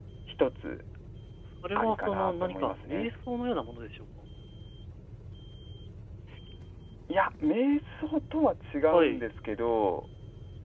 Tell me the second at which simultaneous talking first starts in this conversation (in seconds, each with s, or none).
1.8 s